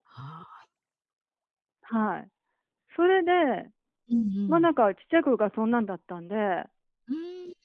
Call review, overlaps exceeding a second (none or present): none